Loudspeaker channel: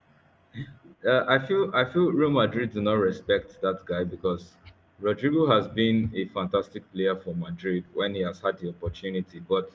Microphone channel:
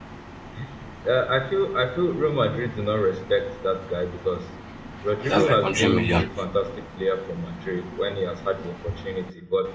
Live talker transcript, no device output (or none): and that's like hundred million.